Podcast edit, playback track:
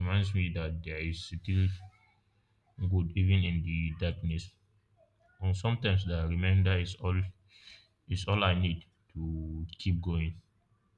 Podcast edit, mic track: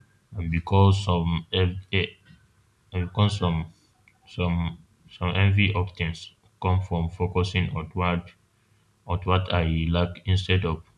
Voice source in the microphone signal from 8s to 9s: user only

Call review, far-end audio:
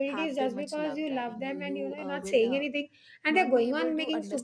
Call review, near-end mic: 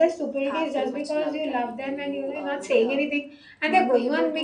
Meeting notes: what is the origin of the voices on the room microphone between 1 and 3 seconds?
echo only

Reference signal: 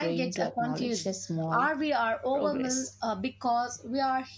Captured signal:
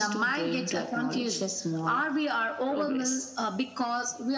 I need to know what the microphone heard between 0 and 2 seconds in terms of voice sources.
echo only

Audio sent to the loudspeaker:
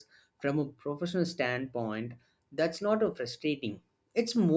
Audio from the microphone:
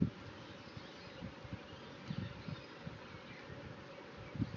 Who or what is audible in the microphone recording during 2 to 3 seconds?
neither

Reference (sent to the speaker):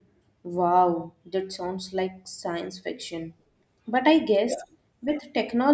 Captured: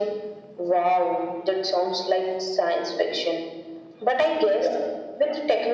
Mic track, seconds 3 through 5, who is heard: echo only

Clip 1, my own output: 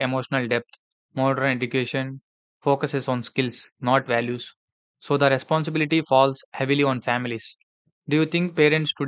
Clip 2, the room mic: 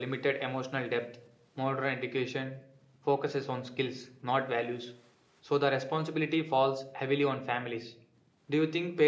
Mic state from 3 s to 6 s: echo only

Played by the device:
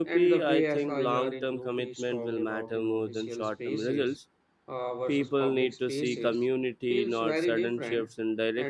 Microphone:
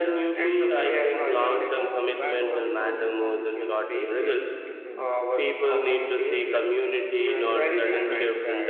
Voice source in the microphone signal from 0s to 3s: both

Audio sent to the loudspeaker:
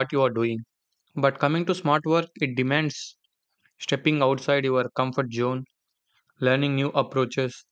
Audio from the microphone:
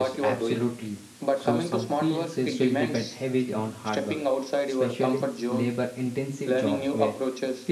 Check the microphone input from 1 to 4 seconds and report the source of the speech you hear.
both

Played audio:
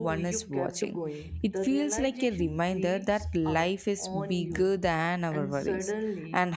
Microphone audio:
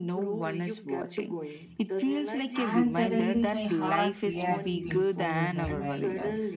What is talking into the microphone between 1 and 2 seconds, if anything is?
echo only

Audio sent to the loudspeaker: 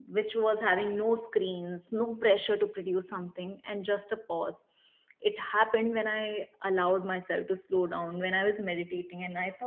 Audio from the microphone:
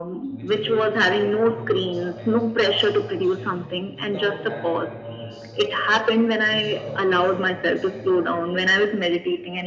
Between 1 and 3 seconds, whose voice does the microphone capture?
both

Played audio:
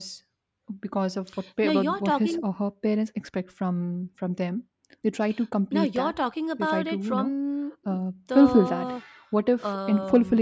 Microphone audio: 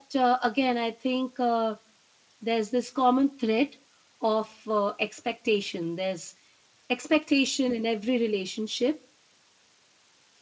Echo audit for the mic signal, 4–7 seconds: user only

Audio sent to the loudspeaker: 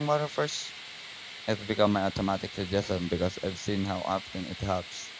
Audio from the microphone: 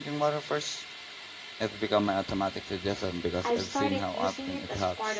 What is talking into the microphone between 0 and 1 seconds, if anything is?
echo only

